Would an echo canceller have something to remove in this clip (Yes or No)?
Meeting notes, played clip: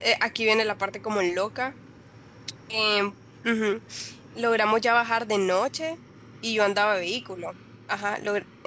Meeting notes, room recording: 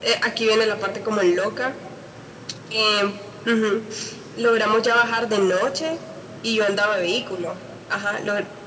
Yes